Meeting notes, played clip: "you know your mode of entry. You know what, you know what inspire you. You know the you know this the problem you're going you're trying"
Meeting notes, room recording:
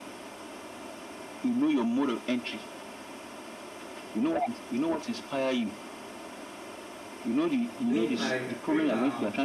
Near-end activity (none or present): present